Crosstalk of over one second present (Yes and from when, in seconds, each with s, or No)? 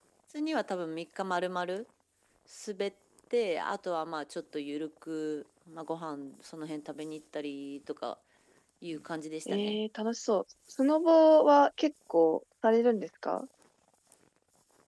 No